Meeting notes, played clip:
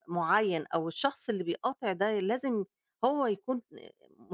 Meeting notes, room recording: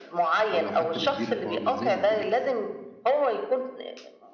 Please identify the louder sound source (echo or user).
echo